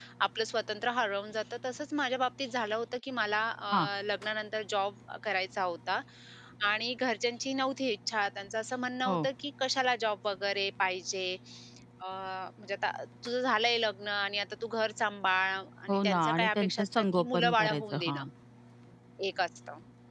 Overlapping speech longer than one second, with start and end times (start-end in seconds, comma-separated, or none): 15.9-18.2